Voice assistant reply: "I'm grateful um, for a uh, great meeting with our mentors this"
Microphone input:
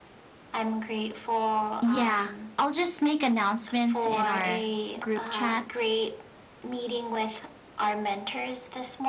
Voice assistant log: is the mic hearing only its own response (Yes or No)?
No